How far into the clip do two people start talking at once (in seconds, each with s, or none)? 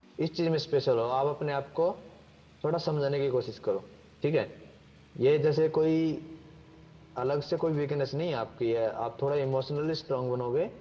none